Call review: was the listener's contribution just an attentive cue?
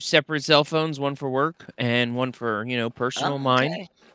No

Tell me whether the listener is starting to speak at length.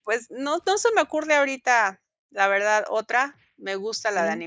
No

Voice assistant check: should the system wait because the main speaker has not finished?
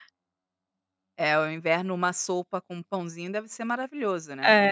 No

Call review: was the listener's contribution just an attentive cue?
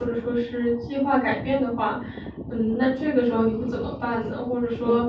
Yes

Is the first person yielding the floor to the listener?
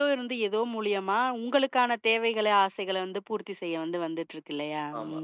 Yes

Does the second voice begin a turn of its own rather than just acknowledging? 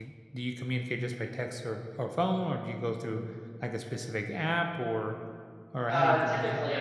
Yes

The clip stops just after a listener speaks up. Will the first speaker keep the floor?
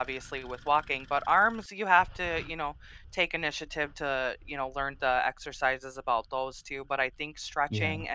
Yes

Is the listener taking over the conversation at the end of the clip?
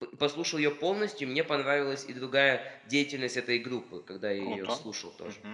Yes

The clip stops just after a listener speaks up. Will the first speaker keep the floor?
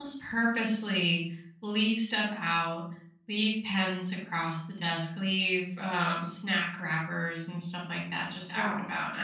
Yes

